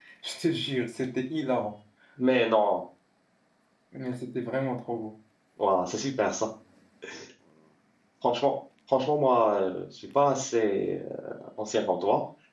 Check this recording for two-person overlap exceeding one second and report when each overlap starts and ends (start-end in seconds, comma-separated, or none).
none